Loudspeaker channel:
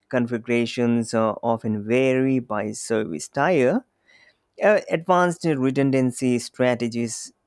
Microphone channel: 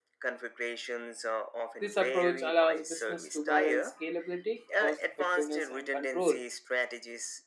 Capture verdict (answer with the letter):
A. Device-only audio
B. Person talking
B